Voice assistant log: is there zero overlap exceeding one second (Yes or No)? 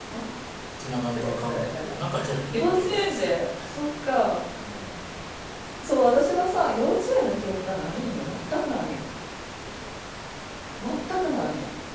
No